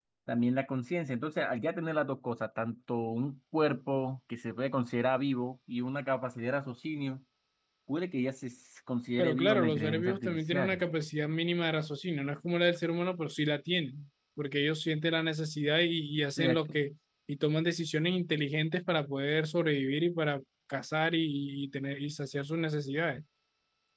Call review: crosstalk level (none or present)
present